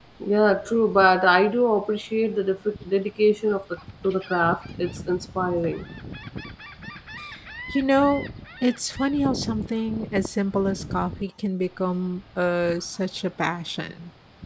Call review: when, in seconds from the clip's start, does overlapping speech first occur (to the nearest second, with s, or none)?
none